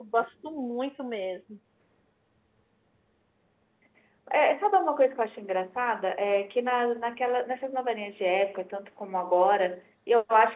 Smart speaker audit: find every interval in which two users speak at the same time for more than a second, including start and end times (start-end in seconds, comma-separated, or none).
none